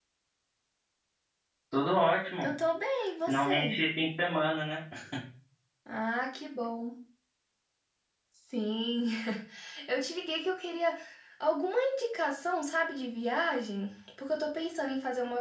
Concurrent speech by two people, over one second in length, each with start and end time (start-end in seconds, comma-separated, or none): none